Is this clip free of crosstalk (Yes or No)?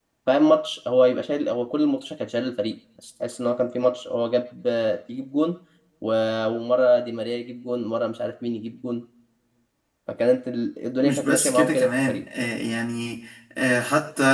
No